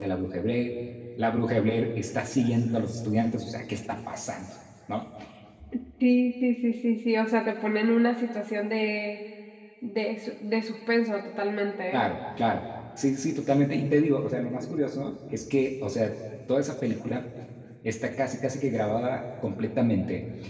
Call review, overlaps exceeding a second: none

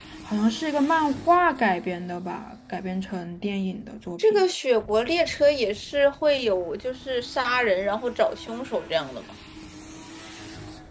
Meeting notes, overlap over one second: none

